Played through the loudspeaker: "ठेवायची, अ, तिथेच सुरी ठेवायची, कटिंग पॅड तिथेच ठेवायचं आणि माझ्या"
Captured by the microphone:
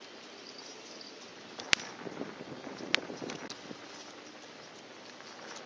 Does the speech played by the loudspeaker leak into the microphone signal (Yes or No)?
No